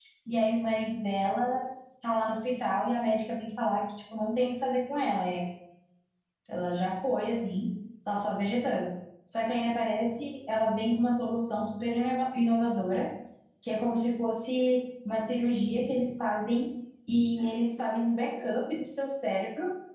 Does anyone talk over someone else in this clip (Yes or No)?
No